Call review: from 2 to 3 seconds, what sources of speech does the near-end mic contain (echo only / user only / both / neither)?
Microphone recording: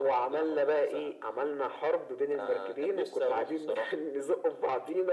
echo only